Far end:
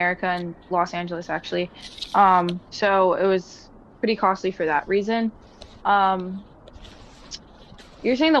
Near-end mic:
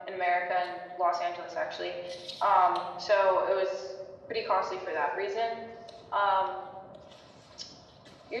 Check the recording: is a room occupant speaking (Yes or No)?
No